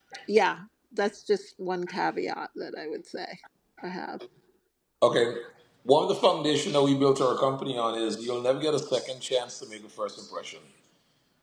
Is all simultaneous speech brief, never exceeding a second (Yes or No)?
Yes